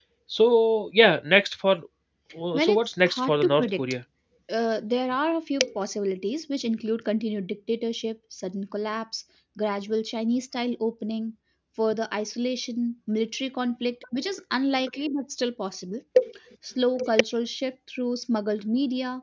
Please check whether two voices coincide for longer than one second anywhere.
Yes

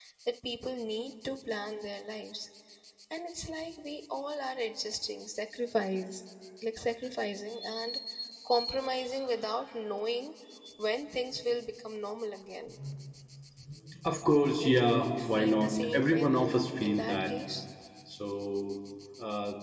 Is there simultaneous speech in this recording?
Yes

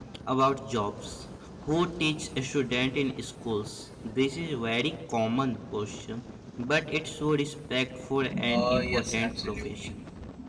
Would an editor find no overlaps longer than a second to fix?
No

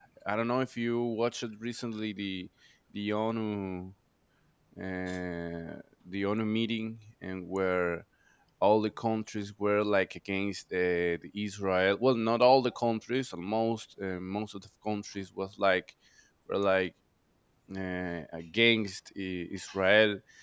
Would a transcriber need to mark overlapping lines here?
No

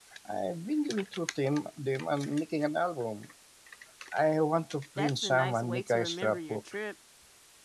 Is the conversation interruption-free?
No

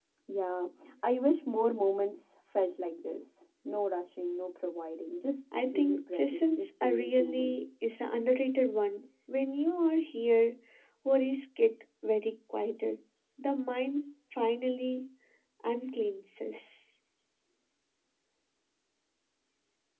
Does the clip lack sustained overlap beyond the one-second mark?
No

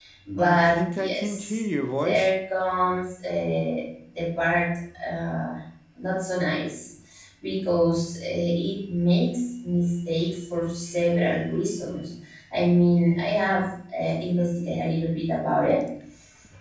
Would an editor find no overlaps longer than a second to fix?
No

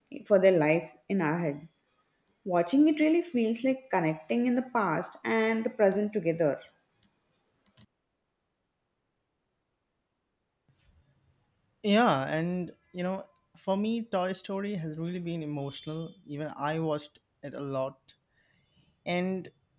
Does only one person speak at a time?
Yes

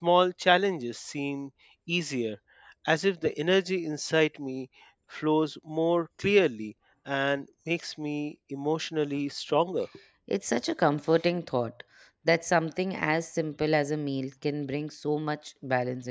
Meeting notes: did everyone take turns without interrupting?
Yes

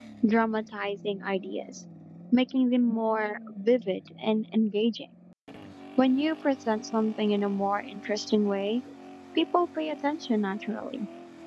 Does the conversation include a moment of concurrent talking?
No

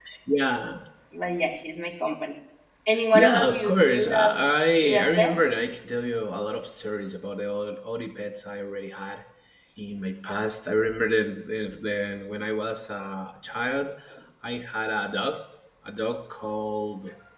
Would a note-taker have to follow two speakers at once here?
Yes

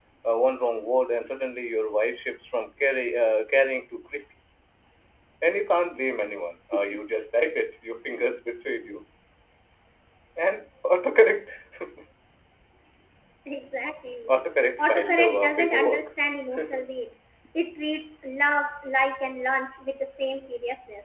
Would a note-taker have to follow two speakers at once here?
Yes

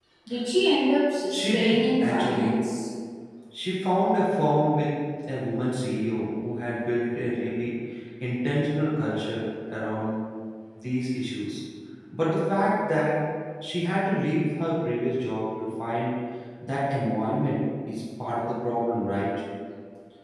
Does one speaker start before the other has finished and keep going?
Yes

